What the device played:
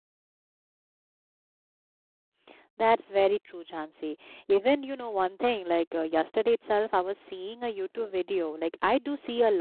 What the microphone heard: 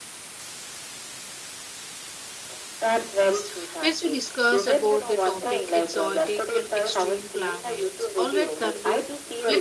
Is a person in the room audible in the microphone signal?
Yes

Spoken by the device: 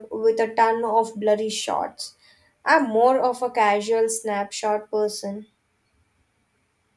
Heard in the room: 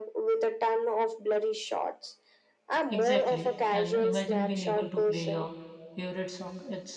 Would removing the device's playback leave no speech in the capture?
No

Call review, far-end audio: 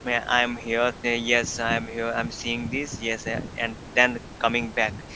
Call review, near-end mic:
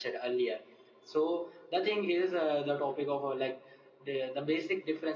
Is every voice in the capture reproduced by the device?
No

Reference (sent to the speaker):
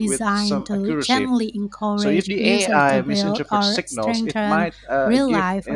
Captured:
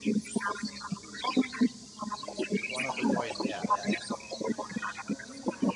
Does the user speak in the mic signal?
Yes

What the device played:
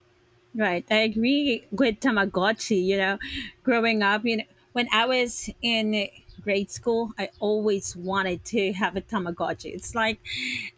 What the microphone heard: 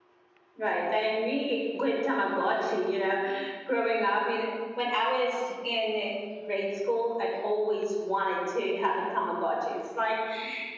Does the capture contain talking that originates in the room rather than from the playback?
No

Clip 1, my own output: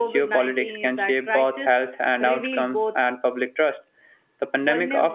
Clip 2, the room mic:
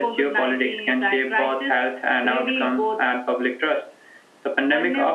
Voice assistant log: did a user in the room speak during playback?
No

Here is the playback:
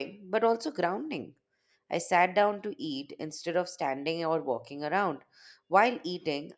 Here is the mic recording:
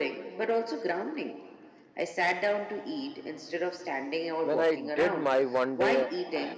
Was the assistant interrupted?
Yes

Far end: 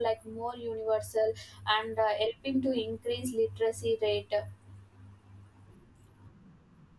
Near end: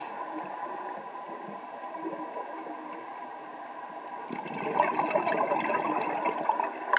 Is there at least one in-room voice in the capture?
No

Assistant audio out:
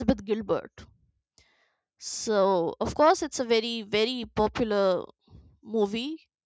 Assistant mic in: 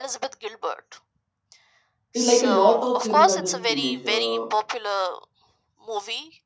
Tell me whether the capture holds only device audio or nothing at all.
No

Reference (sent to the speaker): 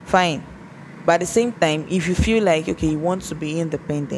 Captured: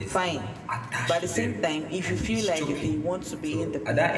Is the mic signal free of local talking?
No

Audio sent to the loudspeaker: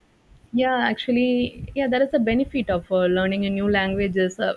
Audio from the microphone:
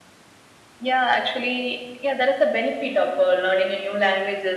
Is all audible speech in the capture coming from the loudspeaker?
Yes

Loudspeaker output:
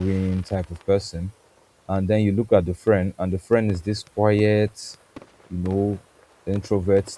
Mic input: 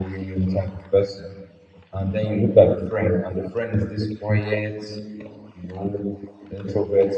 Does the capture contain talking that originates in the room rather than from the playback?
No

